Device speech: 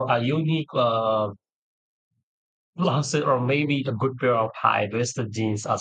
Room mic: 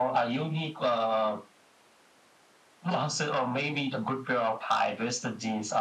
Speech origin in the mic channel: echo only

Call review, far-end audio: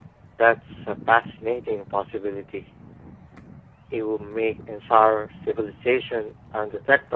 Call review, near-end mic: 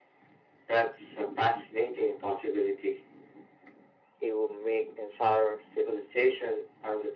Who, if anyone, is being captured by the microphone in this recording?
echo only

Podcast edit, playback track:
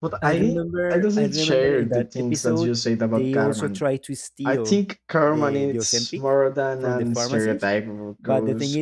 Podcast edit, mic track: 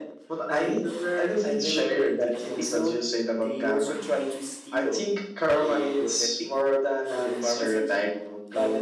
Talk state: echo only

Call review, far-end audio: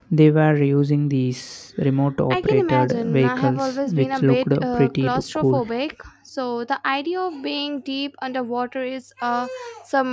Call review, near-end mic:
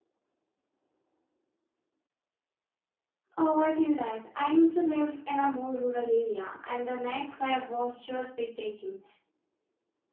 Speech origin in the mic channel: user only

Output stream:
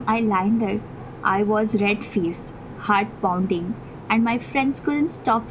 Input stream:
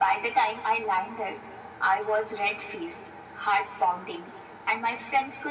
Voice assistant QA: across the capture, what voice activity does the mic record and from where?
echo only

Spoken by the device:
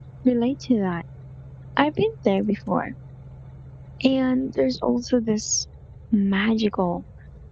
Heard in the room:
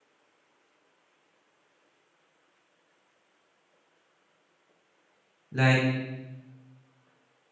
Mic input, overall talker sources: user only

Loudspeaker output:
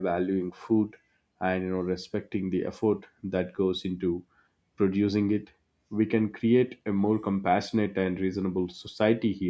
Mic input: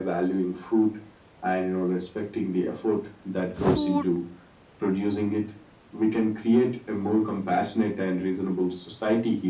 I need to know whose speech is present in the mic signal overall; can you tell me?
both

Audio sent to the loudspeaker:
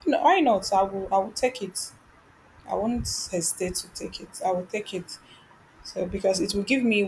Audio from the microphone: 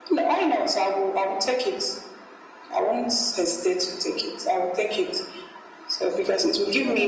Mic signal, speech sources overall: both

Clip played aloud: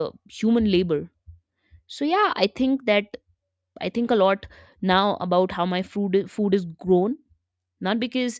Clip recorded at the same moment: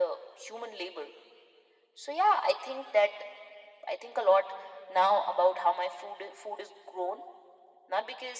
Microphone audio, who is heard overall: echo only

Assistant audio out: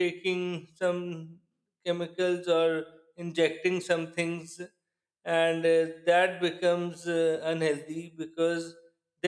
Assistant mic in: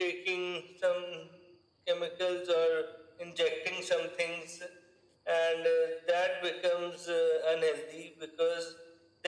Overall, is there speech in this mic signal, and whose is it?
echo only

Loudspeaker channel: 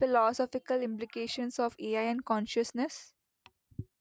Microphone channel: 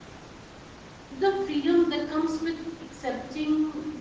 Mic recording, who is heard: user only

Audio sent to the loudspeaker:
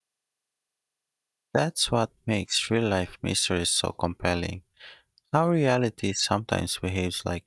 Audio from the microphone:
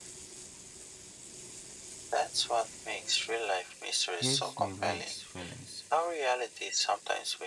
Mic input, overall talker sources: both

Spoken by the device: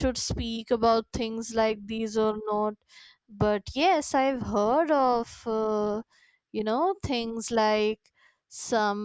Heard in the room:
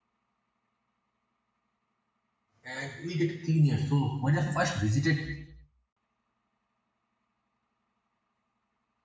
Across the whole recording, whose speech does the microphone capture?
user only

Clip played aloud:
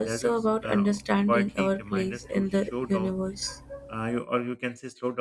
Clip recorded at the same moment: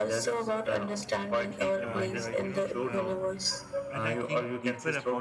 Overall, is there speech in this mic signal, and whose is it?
both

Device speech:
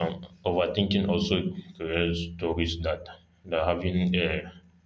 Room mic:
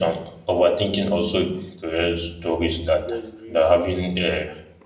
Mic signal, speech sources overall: both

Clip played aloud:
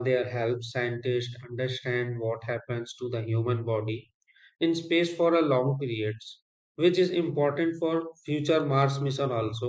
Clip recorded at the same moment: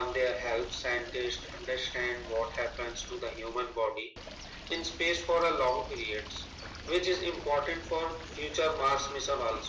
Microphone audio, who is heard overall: echo only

